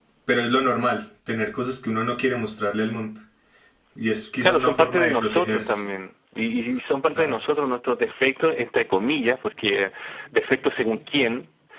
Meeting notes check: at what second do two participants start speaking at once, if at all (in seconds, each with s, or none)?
4.4 s